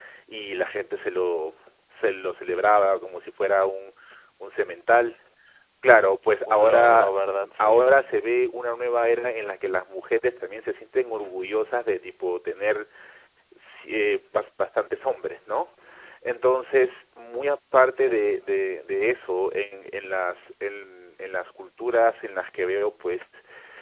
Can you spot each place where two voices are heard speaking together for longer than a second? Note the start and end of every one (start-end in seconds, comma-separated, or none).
6.5-7.7